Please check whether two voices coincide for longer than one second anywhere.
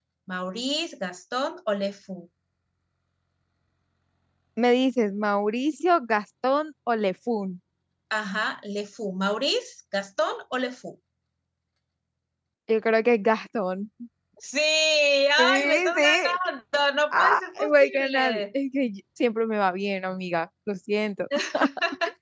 Yes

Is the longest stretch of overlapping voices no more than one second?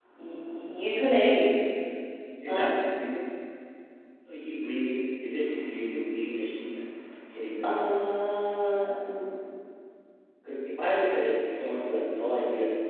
Yes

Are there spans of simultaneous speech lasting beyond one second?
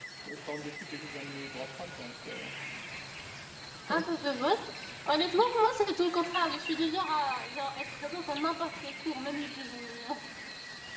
No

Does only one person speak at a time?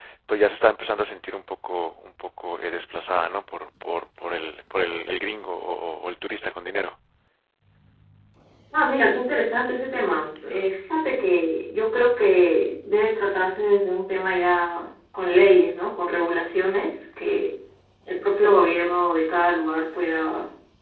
Yes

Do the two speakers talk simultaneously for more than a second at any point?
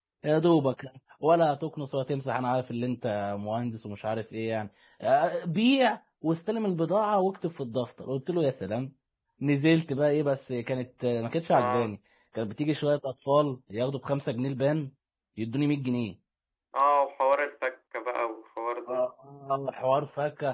No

